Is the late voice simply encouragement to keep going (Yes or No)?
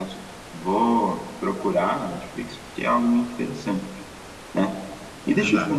Yes